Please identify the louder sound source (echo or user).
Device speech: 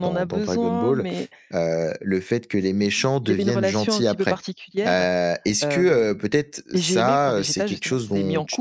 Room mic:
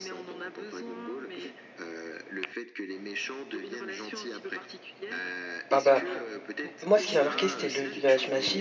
user